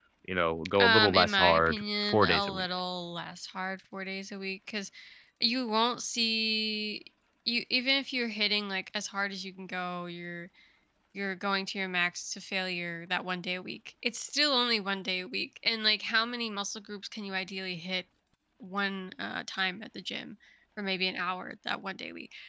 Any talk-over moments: Yes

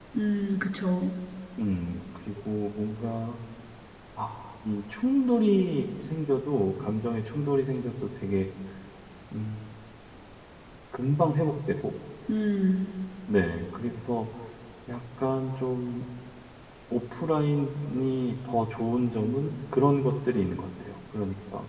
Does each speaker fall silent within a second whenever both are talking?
Yes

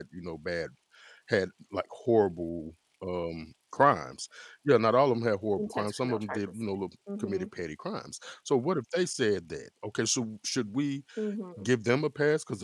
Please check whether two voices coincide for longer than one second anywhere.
Yes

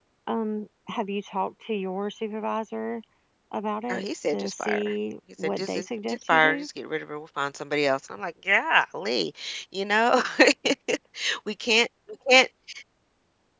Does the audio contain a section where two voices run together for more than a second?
Yes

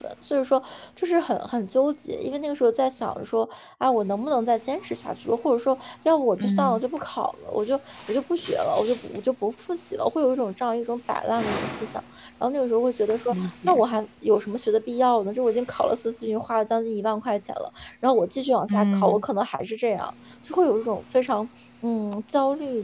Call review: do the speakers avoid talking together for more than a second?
Yes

